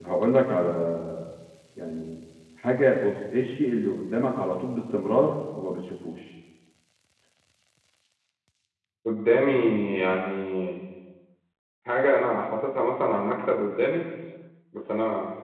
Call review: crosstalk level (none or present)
none